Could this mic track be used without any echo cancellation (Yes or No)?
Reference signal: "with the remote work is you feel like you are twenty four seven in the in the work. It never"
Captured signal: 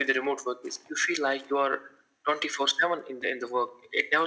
No